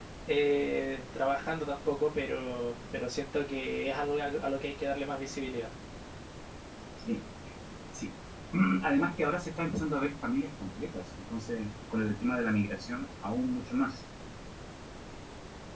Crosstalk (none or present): none